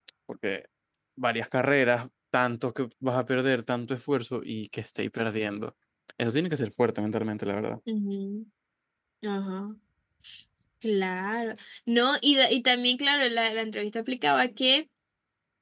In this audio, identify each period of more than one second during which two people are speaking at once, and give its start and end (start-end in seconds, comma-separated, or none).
none